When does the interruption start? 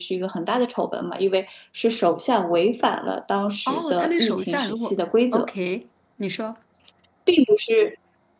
3.7 s

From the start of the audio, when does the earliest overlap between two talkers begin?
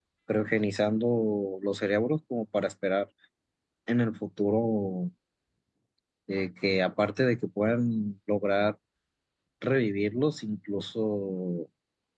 none

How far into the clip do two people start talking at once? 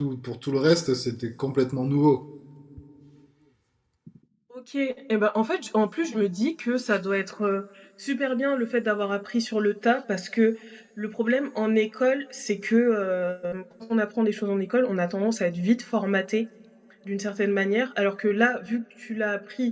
none

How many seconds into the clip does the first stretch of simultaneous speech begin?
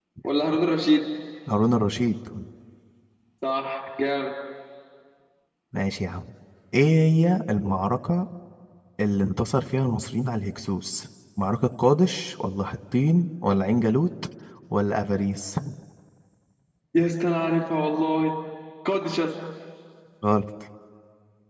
none

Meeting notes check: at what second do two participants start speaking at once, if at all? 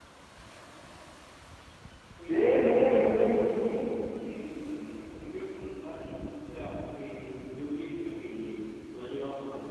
2.3 s

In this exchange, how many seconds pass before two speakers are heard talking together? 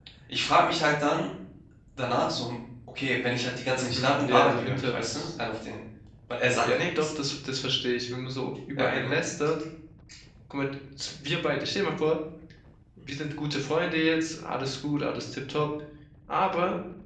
3.8 s

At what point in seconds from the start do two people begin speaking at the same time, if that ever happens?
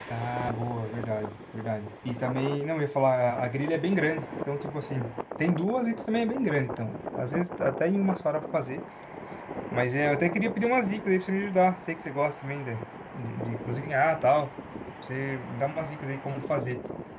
none

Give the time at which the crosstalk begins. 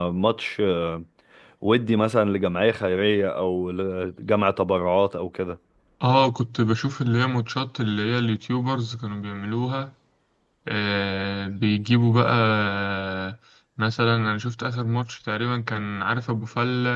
none

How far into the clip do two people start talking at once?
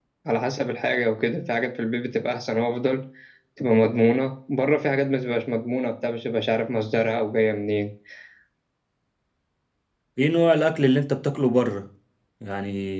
none

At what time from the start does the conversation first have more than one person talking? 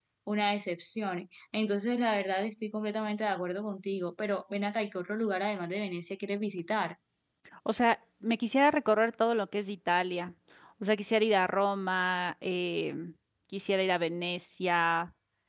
none

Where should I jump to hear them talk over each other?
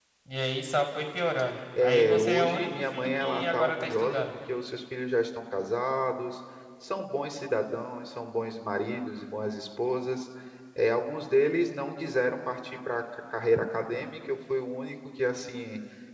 1.8 s

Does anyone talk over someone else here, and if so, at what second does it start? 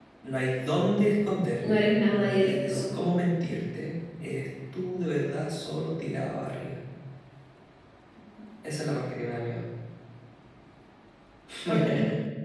1.8 s

